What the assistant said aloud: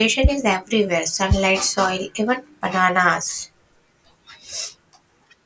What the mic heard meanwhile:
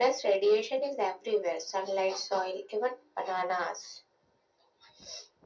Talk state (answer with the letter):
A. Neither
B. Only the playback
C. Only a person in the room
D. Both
B